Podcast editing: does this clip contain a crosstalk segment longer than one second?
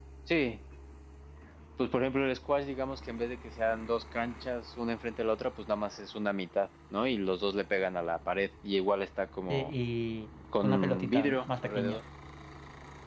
Yes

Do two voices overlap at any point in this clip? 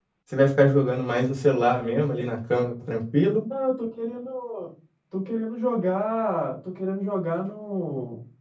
No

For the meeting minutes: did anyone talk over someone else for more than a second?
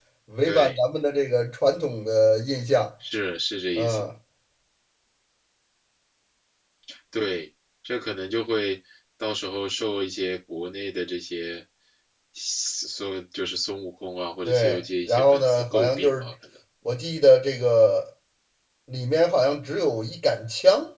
Yes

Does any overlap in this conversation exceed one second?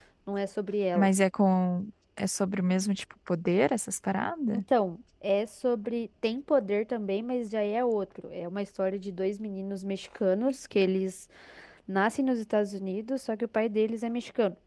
No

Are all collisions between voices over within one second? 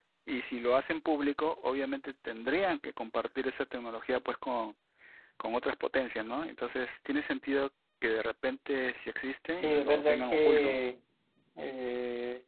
No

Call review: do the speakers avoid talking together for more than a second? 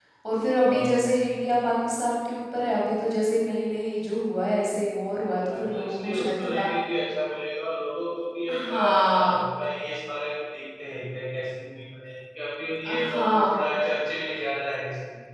No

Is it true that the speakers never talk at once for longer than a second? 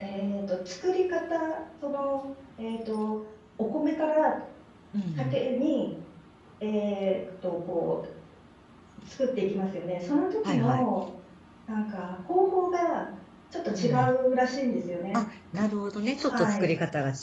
Yes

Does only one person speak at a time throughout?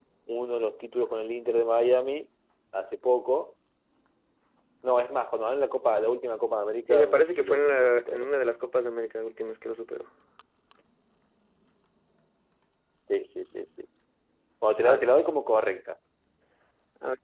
No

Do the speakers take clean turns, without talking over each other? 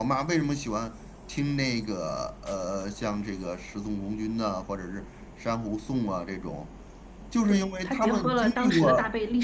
No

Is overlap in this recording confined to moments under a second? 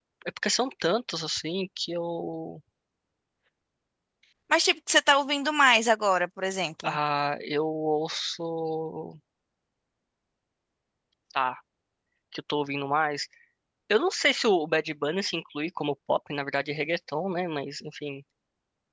Yes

